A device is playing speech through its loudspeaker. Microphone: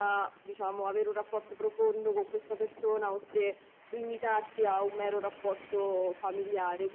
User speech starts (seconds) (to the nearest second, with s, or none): none